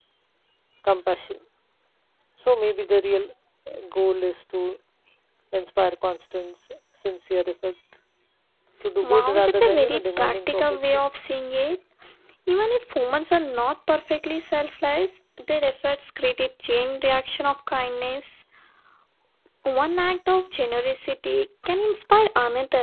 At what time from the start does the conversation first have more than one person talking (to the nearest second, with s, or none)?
9 s